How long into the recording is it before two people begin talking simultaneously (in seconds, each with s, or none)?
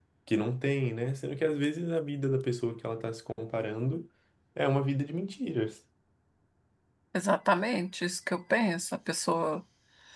none